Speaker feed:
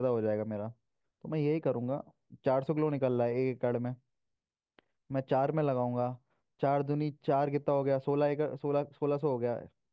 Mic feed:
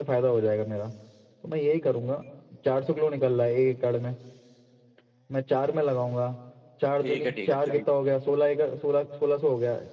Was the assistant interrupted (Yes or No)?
Yes